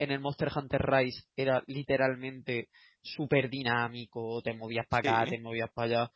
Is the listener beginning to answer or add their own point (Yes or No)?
No